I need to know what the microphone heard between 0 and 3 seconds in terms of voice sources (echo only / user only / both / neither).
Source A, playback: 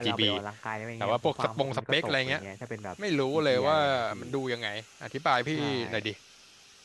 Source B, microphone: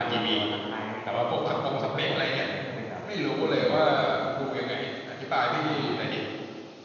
echo only